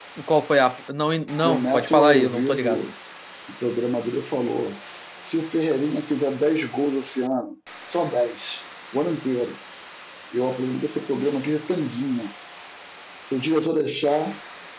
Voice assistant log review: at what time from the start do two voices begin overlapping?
1.3 s

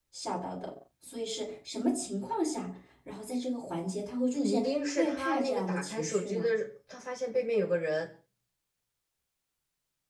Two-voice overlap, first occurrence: 4.3 s

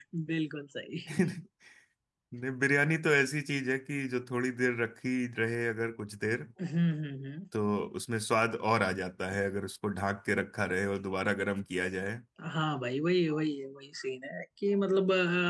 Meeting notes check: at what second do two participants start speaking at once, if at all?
none

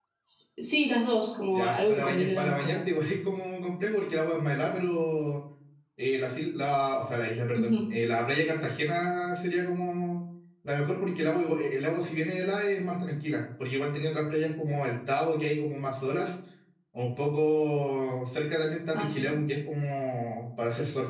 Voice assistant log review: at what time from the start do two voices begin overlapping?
1.5 s

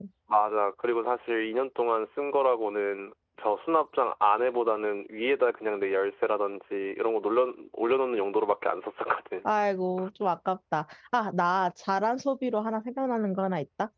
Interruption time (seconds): none

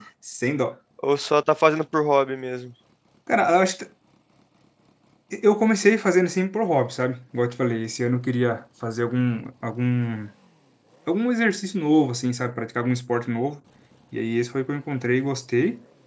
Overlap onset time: none

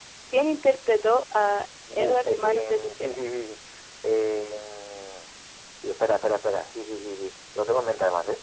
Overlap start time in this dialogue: 1.9 s

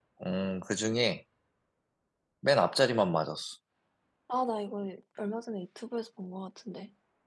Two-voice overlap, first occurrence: none

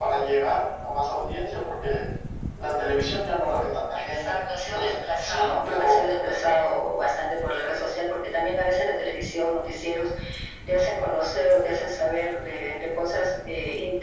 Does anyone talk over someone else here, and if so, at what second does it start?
4.1 s

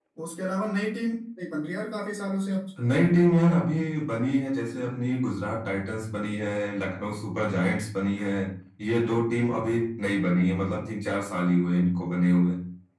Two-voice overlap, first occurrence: none

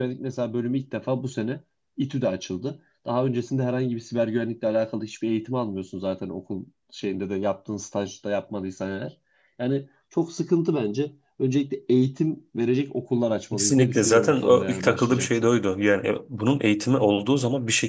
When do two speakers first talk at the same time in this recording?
13.5 s

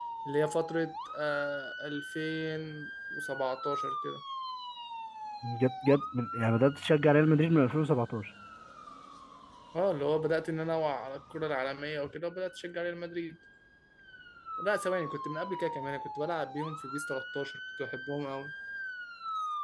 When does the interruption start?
none

